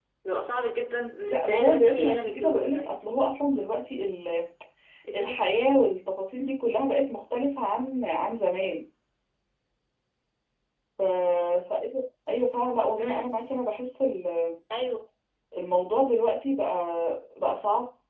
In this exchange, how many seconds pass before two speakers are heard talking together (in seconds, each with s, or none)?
1.3 s